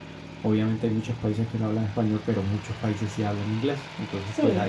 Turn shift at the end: No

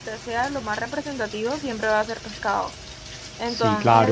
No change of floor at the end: Yes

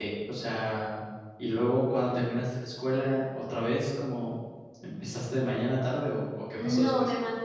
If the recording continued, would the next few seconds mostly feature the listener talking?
Yes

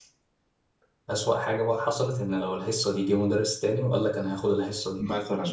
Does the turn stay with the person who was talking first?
No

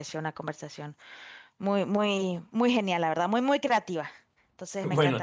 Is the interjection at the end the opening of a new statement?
No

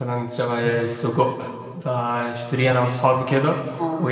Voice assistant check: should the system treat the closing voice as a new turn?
No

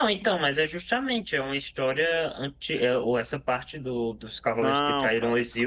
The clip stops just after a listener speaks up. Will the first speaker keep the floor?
No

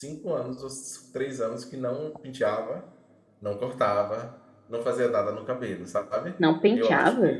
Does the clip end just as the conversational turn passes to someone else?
No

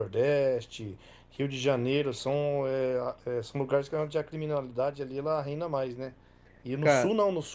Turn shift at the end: No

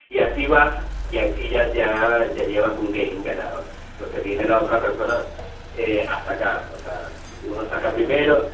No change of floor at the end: Yes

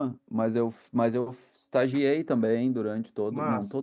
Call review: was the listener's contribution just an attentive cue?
Yes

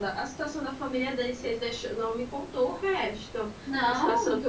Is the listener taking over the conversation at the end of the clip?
No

